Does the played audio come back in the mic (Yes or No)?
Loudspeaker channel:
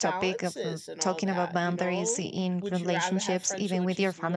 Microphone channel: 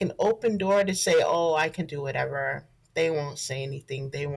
No